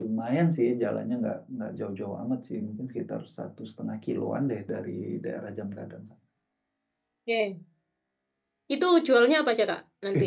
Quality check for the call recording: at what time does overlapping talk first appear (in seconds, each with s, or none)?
none